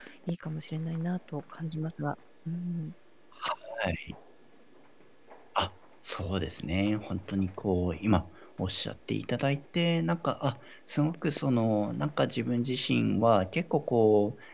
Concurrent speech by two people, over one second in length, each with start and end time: none

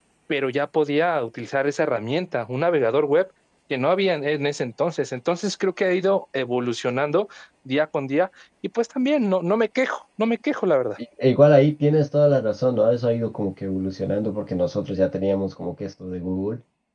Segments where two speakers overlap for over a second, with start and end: none

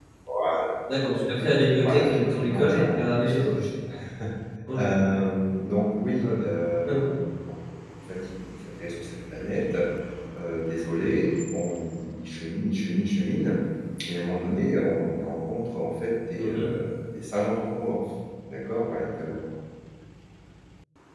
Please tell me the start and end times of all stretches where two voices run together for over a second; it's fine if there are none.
1.8-3.3

